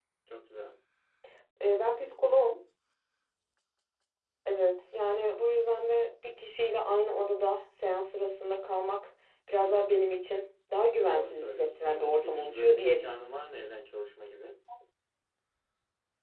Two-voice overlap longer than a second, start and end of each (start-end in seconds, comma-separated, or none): 11.1-13.0